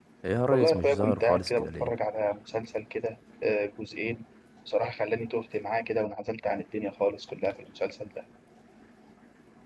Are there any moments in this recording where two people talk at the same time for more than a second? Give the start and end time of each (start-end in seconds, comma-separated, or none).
0.5-1.9